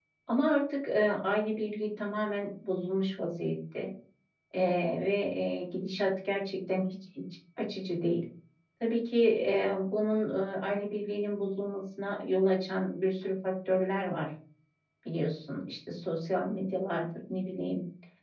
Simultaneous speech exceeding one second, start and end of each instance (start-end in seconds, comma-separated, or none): none